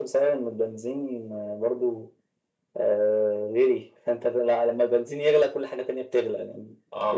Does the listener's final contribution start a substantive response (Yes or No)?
No